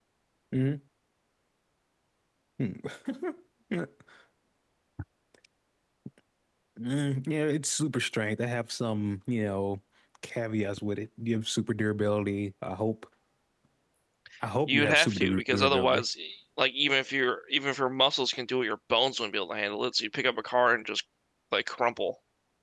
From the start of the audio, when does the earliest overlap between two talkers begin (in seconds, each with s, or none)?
14.7 s